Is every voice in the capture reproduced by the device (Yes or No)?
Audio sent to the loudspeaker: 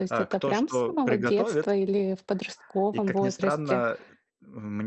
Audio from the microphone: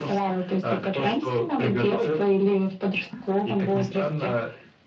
Yes